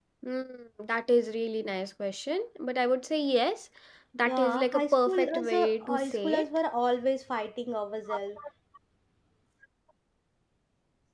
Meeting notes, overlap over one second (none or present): present